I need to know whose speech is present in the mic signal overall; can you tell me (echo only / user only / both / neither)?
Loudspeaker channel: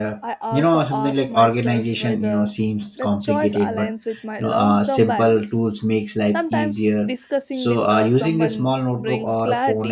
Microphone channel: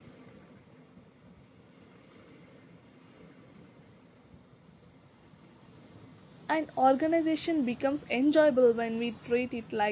user only